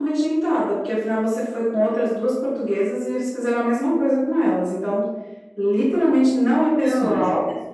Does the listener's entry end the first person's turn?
Yes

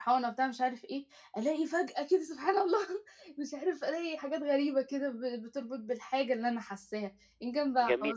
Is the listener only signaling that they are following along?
No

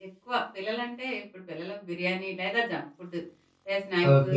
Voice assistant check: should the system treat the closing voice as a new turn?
Yes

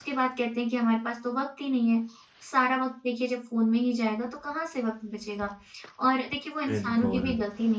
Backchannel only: Yes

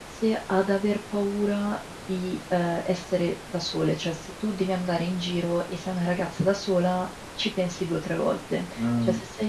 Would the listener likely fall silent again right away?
Yes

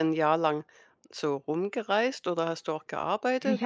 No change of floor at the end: No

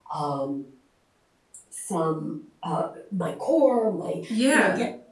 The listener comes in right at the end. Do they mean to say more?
No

